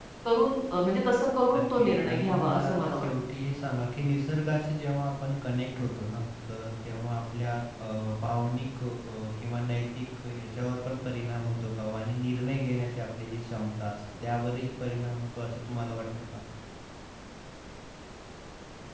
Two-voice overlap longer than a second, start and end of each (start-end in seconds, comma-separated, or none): 1.6-3.1